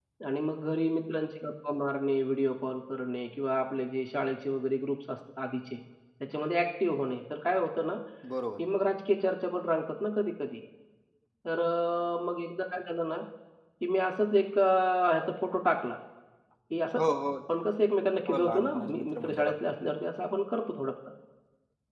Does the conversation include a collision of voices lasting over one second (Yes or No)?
Yes